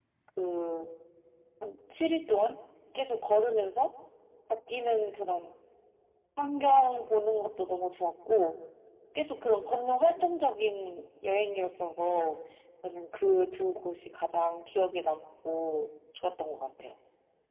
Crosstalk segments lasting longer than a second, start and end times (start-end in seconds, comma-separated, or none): none